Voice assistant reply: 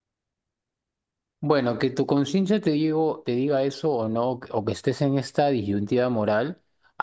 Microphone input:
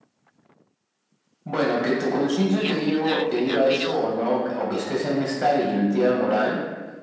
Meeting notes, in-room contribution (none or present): present